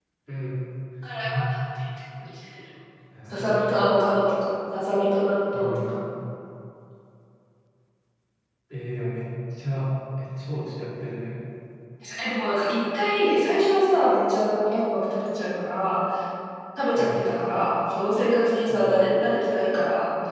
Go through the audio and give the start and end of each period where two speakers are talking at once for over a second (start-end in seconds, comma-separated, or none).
none